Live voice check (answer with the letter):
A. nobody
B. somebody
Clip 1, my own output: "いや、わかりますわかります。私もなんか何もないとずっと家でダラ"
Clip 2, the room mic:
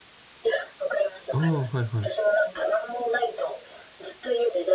B